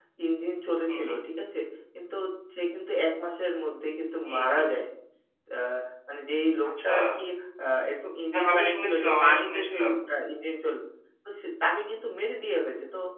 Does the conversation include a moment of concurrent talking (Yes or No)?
Yes